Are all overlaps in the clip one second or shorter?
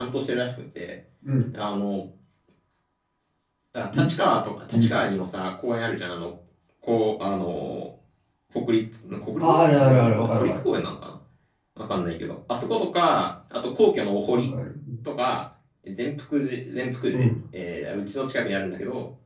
No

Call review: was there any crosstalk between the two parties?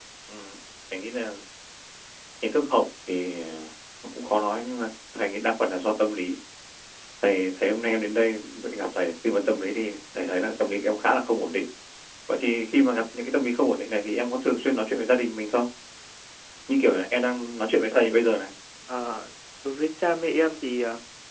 No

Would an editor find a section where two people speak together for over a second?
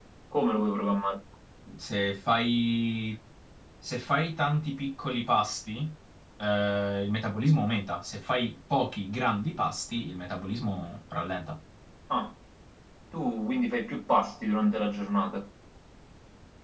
No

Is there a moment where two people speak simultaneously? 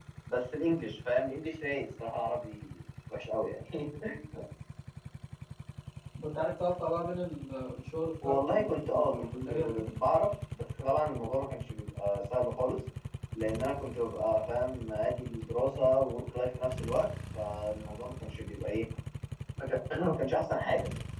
Yes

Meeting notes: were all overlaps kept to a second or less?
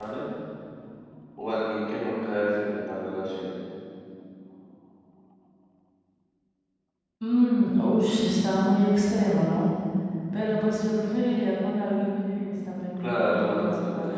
No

